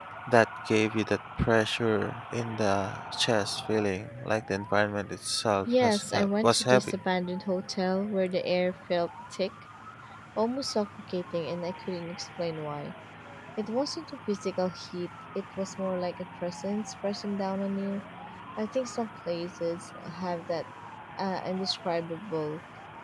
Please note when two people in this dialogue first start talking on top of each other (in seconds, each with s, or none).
5.7 s